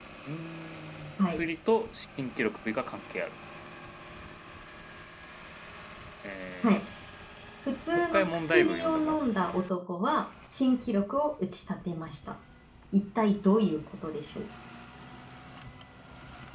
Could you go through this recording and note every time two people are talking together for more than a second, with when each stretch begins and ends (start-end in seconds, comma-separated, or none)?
7.9-9.6